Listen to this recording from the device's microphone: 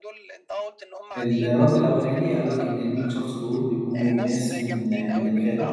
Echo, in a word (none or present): present